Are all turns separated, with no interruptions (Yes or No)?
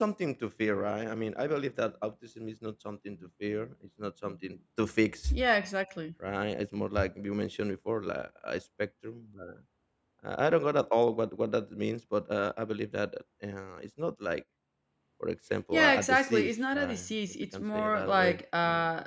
No